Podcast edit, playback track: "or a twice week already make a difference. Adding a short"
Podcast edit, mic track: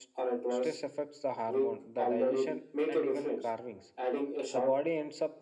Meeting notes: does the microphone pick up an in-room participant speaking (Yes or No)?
Yes